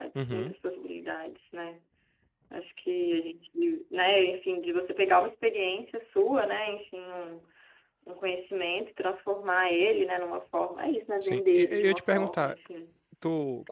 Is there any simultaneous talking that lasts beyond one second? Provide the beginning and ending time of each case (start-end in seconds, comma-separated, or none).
11.2-12.6